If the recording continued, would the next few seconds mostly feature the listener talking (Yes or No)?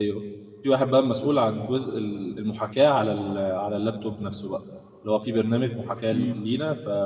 No